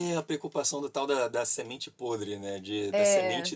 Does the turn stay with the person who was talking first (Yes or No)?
Yes